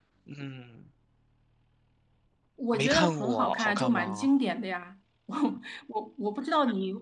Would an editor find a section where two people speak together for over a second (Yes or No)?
Yes